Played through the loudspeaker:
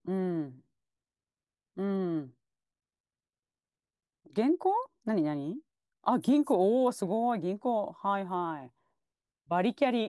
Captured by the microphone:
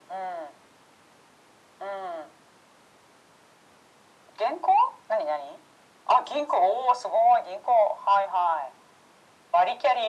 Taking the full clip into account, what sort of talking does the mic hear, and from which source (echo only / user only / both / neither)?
echo only